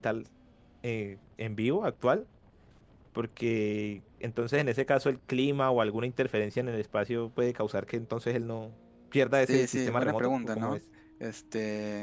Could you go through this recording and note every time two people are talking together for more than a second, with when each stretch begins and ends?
9.3-10.8

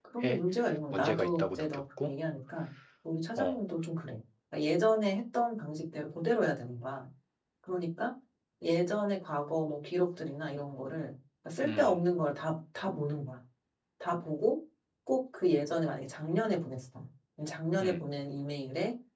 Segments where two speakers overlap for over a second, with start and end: 0.9-2.1

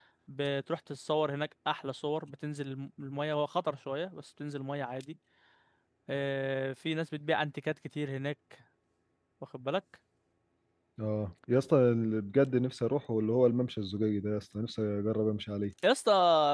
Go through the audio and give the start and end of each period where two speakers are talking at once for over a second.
none

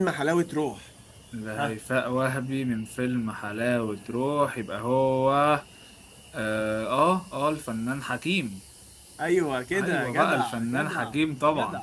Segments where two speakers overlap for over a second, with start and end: 9.7-11.2

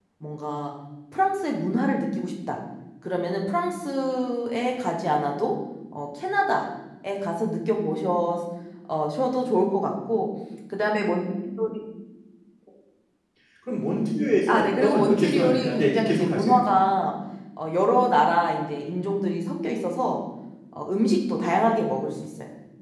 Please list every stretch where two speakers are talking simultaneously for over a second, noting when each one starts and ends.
14.5-16.5

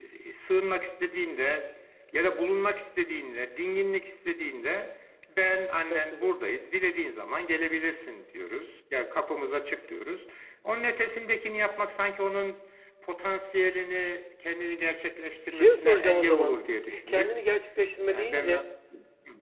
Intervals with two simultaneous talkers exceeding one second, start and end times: 15.5-17.3

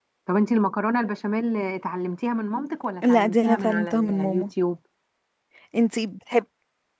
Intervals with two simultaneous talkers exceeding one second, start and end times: 3.1-4.5

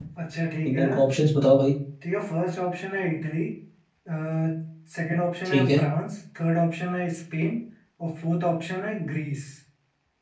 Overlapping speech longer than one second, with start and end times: none

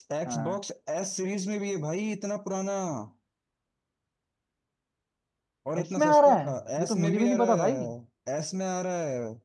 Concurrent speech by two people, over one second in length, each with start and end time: 5.8-7.8

